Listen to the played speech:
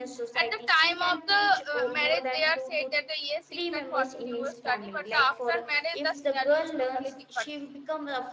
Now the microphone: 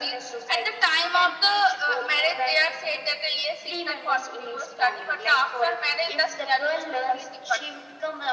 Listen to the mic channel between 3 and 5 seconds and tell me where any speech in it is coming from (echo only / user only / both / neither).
echo only